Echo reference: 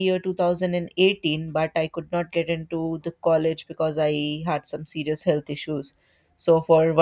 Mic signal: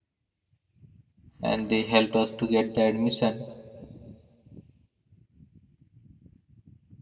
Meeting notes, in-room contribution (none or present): present